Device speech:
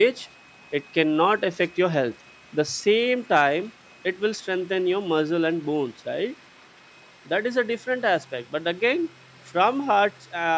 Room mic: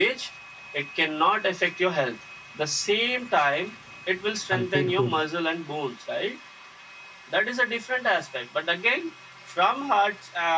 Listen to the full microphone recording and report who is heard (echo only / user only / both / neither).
both